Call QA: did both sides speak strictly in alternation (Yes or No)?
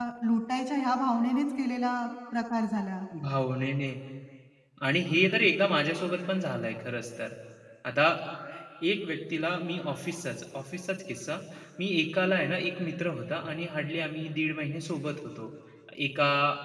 Yes